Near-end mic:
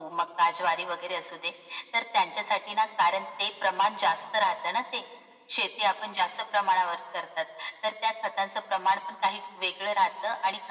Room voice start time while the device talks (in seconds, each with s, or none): none